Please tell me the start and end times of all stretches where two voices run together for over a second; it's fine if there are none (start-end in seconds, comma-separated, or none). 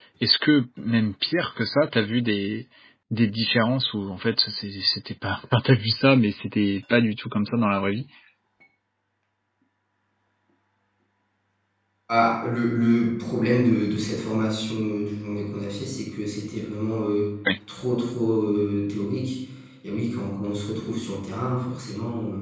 none